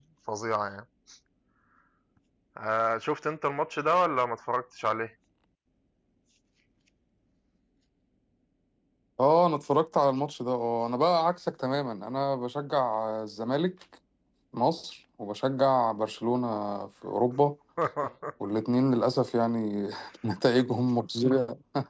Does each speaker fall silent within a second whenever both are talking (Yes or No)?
Yes